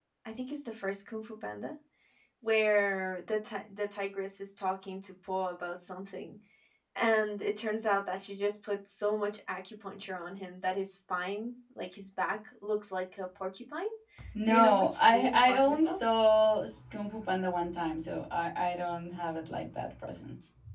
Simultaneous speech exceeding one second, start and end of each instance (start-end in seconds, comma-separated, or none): 14.5-16.0